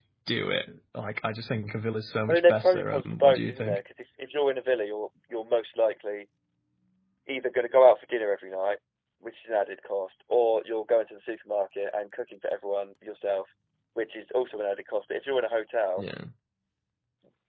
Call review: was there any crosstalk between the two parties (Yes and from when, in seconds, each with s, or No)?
Yes, from 2.2 s